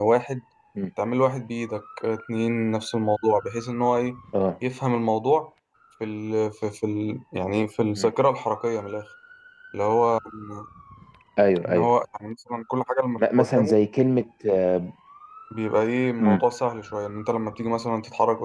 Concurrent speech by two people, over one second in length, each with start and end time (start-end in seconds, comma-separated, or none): none